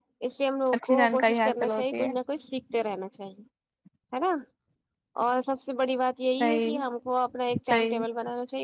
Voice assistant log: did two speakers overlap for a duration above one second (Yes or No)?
Yes